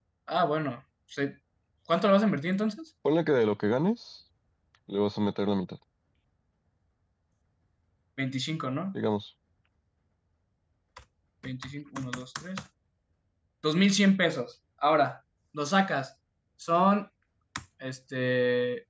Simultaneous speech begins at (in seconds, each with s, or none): none